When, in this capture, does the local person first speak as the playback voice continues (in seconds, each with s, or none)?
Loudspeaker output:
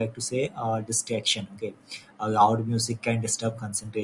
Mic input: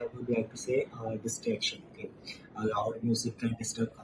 none